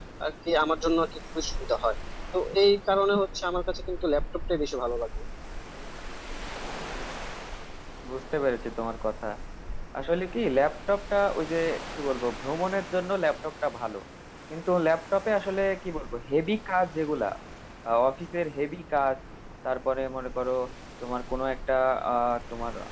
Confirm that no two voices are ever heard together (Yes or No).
Yes